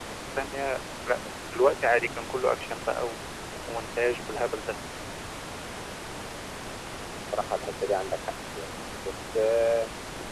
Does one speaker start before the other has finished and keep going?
No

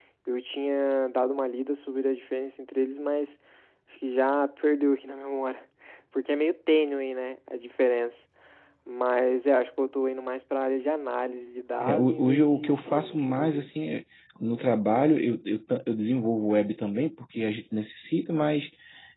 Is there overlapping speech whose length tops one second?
Yes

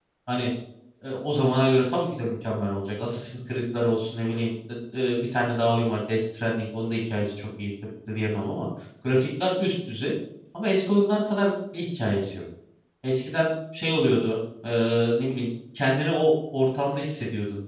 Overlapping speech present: No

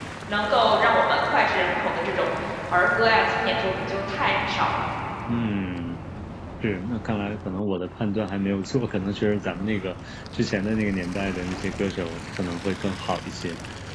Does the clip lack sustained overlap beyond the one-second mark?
Yes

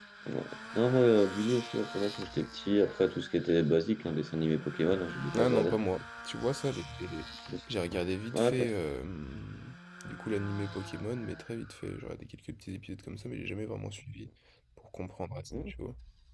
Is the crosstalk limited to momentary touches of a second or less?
Yes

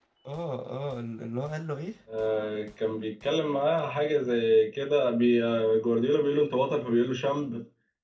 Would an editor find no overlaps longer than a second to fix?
Yes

